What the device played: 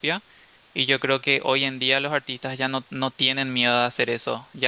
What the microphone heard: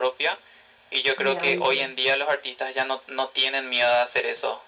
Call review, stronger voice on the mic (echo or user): echo